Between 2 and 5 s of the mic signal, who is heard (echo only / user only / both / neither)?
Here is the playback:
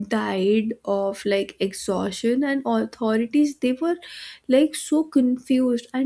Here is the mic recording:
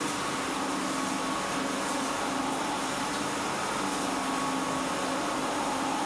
neither